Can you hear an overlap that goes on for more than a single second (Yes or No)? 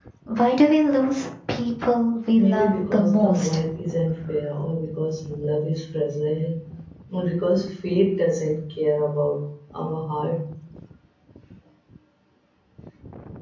Yes